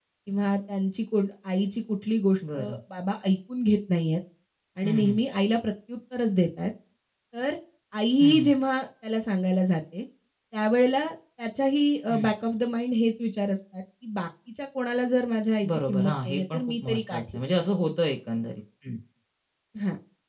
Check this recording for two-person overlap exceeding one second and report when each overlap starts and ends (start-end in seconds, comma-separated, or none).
15.7-17.4